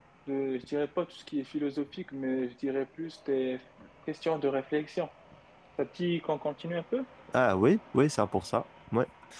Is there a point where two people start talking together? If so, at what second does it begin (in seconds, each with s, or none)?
none